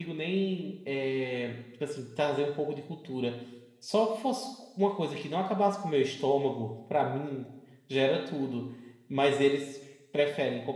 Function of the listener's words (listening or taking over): listening